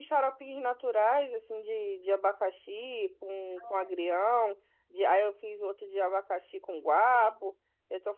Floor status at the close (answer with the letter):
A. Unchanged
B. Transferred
A